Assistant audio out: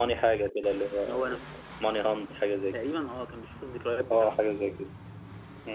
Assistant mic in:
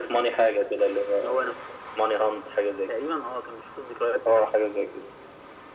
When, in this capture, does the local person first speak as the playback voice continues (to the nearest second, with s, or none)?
none